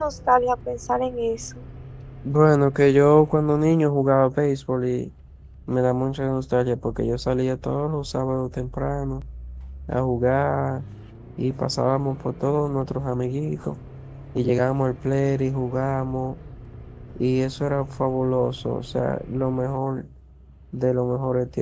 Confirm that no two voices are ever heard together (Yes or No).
Yes